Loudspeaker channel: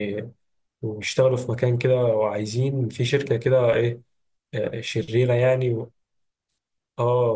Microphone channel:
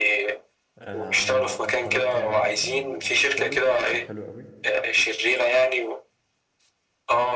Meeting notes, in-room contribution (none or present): present